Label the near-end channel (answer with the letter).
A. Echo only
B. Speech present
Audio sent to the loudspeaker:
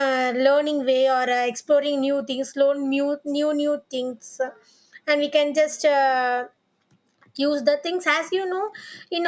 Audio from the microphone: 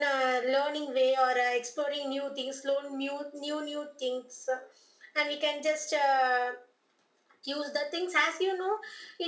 A